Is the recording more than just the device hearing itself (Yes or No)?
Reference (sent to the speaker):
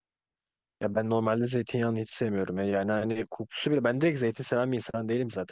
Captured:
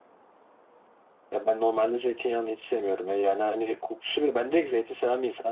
No